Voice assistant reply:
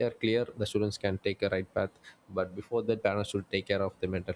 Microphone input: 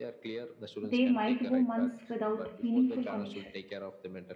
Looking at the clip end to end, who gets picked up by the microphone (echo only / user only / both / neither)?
both